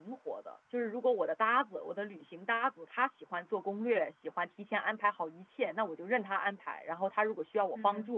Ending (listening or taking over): listening